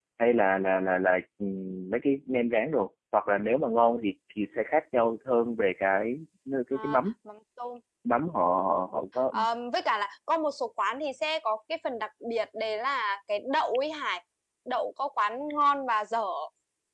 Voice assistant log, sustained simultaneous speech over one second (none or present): none